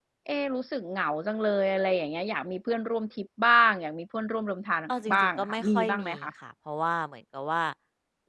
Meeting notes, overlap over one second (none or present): present